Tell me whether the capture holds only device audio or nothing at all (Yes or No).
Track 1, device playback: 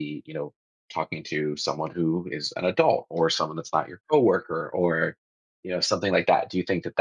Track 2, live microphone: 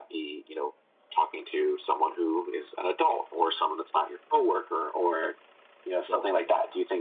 No